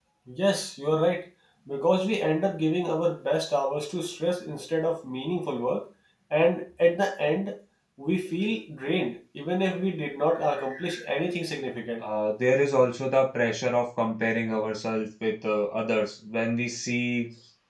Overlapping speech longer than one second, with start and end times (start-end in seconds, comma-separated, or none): none